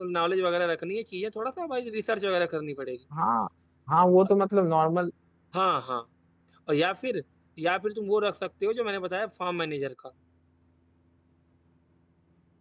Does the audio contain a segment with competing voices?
No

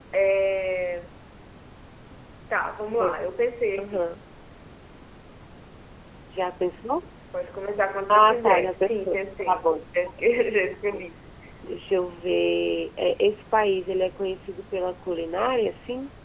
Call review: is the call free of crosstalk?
No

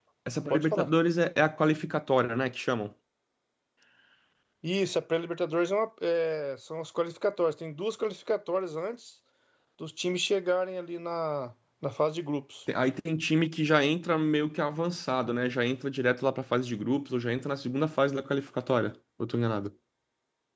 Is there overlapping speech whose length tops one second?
No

